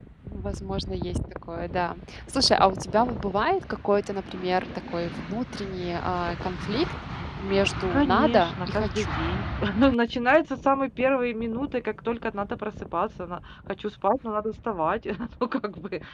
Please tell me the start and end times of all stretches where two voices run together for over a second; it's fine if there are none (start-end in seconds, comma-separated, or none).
7.9-9.2